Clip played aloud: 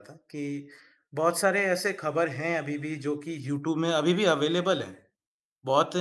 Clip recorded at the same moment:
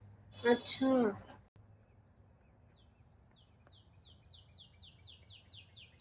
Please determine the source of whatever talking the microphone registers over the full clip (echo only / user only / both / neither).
user only